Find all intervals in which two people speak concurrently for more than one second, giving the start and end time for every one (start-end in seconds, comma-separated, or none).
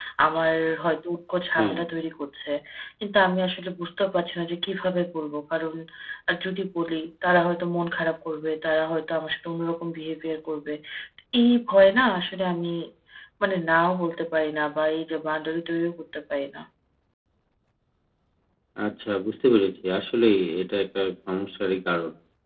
none